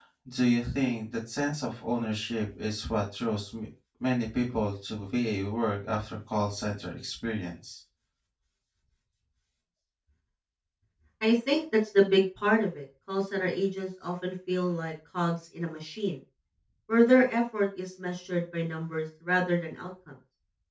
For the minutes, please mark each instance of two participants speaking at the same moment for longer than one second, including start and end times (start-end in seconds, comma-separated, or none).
none